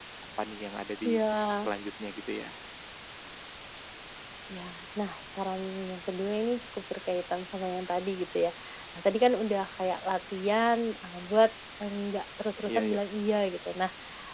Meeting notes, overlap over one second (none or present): none